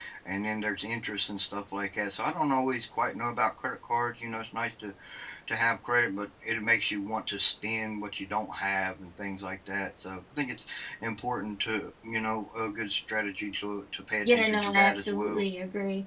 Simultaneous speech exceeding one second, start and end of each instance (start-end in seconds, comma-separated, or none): 14.2-15.4